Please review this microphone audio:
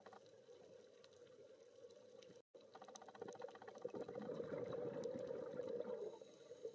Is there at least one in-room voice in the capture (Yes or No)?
No